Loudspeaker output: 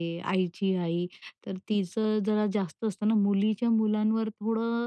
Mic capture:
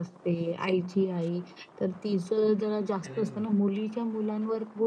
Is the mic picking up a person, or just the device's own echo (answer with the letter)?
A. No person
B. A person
B